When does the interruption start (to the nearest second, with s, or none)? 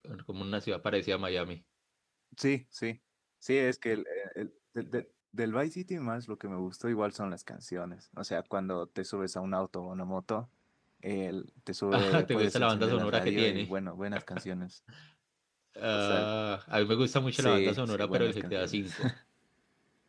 12 s